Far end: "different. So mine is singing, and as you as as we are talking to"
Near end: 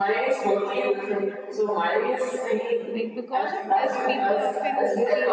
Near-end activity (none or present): present